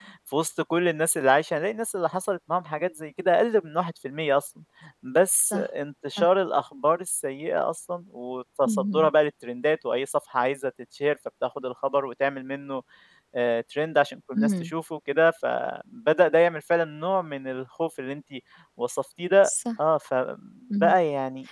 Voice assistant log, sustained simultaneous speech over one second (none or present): none